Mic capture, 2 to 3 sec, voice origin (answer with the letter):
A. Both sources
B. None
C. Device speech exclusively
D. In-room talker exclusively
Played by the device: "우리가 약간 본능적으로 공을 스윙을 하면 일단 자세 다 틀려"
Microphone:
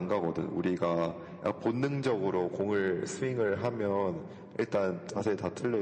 C